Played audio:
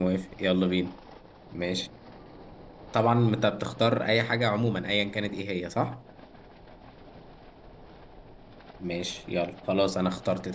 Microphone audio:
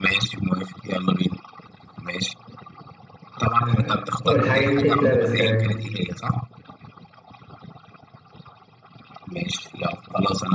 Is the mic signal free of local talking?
No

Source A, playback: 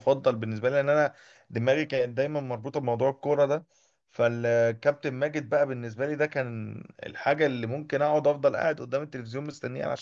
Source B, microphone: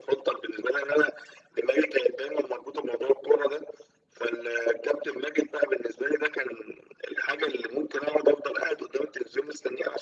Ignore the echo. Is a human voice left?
No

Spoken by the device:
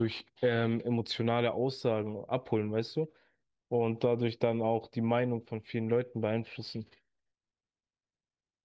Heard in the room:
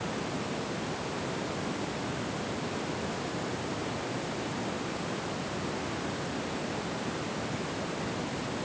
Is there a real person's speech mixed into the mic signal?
No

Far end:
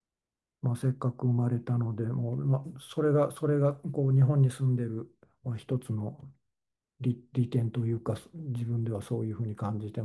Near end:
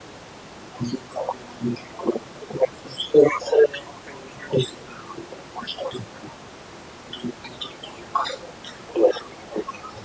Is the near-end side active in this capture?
No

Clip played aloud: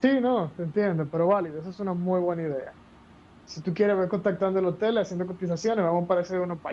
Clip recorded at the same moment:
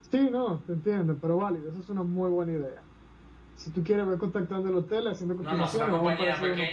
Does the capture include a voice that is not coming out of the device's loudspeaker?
Yes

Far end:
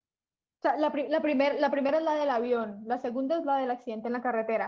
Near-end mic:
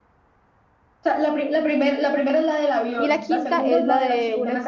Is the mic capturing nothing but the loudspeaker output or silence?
No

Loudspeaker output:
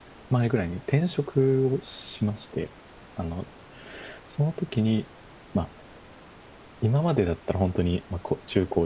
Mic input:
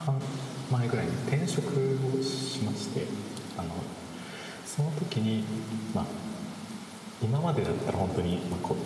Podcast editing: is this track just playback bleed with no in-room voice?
Yes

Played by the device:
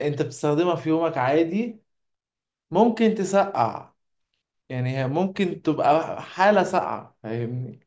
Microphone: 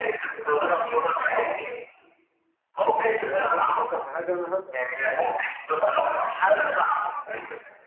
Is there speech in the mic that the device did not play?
Yes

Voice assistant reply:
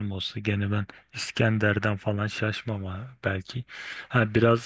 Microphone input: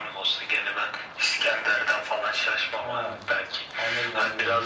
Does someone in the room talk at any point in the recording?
Yes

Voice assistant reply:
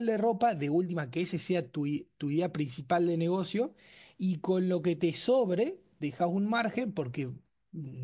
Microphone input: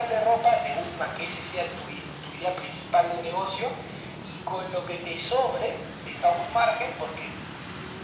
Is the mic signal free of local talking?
Yes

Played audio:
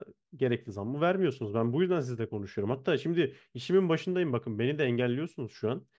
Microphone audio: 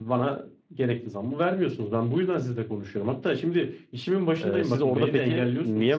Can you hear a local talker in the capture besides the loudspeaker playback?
Yes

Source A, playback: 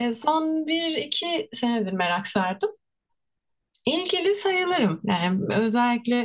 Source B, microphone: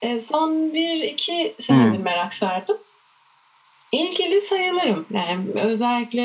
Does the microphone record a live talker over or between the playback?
Yes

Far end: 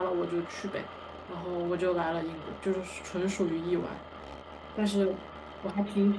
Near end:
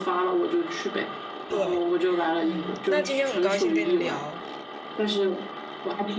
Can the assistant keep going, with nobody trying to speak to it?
No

